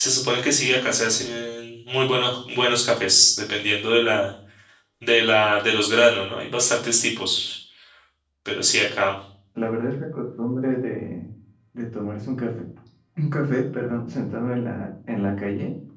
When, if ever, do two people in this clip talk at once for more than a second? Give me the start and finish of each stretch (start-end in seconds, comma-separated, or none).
none